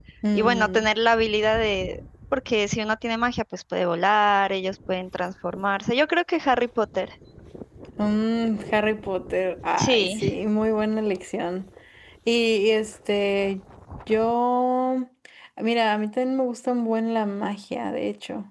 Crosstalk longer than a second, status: none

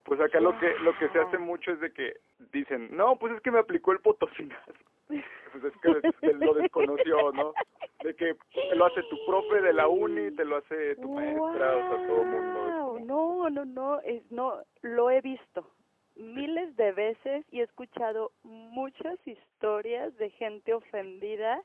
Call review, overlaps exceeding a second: present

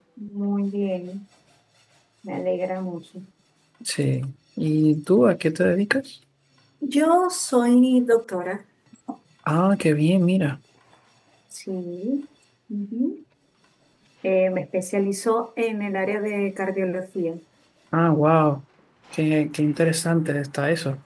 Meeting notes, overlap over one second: none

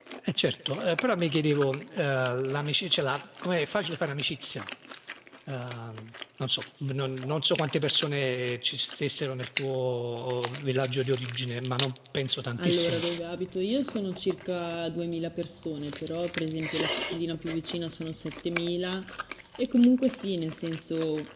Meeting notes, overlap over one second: none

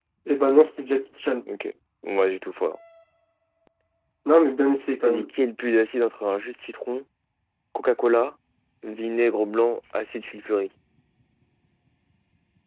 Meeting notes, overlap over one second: none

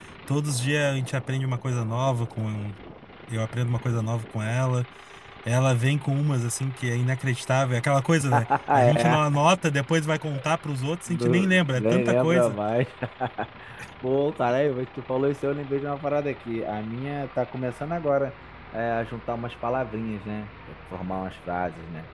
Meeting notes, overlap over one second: present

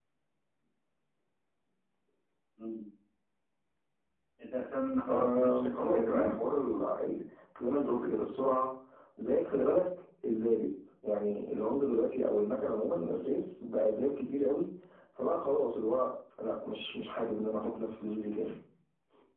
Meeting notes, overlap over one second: present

